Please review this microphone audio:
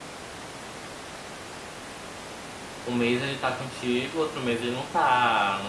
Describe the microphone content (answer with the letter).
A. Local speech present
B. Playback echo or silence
A